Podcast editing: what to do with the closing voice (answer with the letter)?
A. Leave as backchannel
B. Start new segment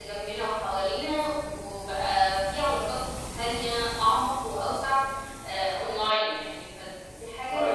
B